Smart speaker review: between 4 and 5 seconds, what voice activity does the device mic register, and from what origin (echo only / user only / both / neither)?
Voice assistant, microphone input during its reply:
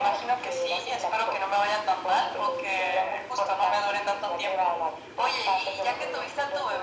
echo only